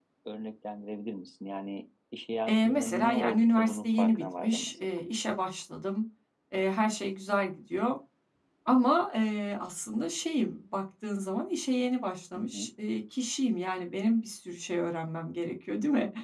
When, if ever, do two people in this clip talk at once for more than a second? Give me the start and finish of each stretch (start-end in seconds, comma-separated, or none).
2.5-4.9